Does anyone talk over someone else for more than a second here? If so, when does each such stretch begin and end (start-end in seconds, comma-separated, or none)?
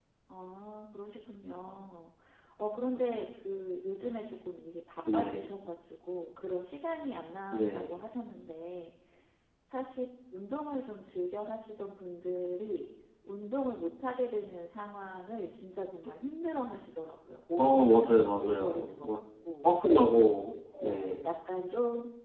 17.6-19.2